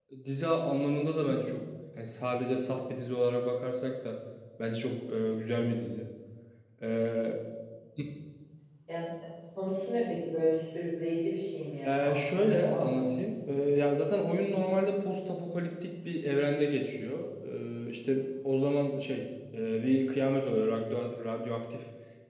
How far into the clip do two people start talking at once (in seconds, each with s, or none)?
11.8 s